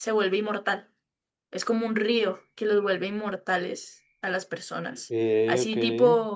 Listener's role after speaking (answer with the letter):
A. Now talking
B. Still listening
B